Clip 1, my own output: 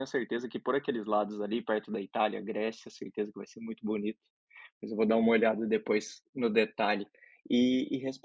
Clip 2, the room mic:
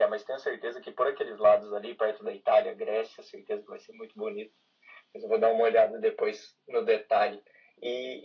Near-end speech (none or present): none